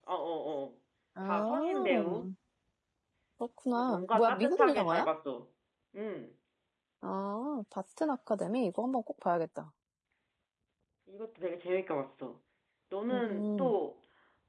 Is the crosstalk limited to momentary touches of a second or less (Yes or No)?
No